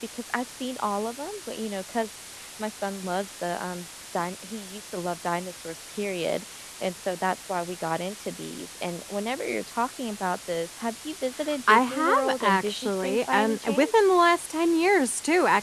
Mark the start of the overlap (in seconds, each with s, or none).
11.7 s